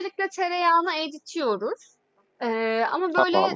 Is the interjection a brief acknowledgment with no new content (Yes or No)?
Yes